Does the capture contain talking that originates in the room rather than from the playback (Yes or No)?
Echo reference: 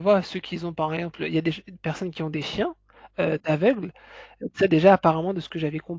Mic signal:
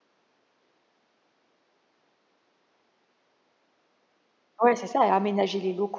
Yes